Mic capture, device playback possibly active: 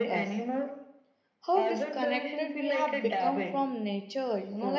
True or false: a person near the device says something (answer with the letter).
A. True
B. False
A